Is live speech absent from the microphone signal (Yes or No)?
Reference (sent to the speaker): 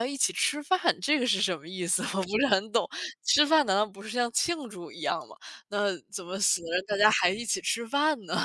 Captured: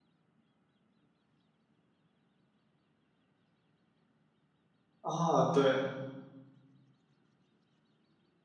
No